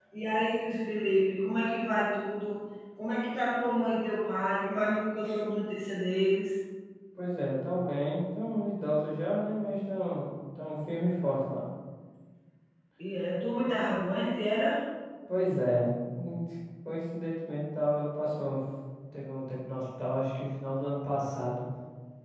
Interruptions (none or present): none